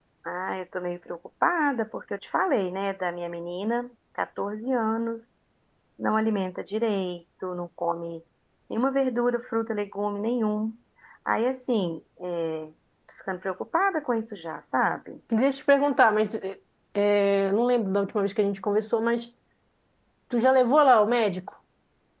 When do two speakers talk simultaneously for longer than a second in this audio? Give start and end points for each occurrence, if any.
none

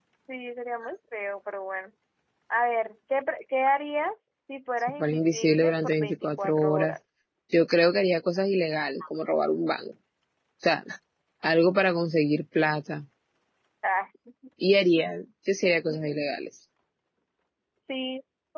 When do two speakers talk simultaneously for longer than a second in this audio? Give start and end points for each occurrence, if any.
4.8-7.0

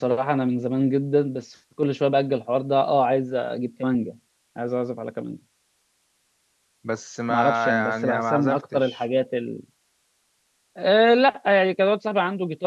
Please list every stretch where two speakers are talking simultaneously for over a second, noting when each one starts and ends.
7.3-9.0

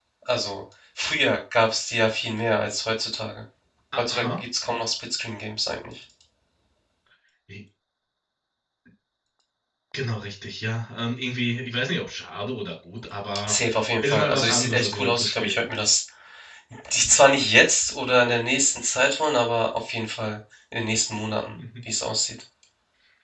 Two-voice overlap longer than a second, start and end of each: 14.0-15.6

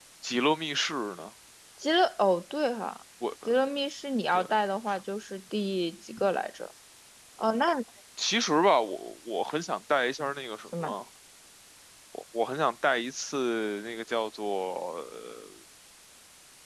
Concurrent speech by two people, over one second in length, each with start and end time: none

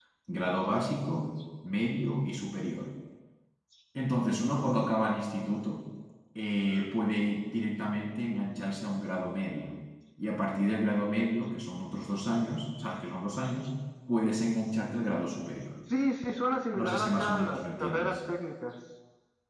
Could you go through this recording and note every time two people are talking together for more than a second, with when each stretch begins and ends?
16.8-18.2

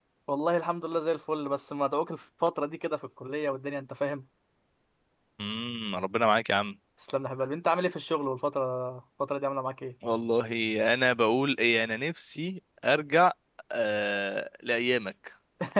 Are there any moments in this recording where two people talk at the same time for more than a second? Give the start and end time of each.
none

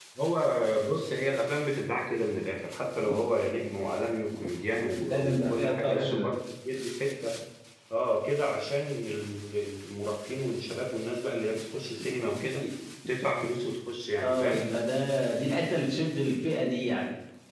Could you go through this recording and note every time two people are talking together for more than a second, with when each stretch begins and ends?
5.0-6.3

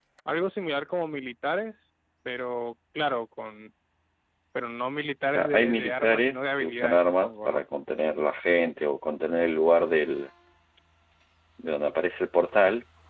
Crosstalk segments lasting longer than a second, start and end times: 5.3-7.6

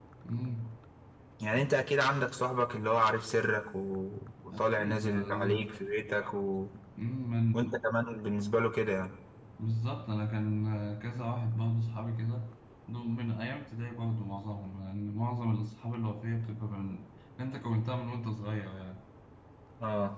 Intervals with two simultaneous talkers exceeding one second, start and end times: 4.5-5.7

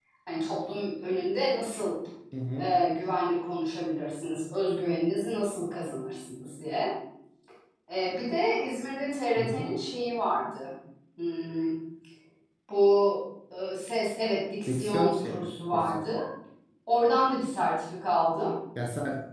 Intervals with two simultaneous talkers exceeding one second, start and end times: 14.7-16.0

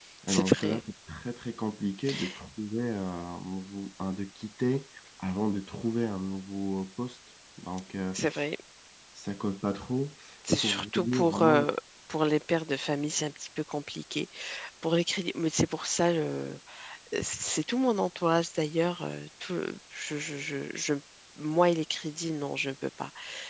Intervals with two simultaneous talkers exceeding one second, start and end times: 10.5-11.7

